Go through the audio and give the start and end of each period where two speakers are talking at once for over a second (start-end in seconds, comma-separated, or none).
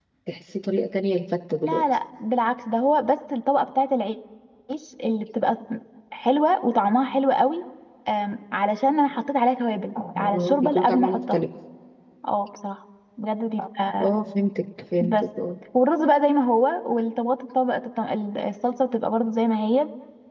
10.2-11.4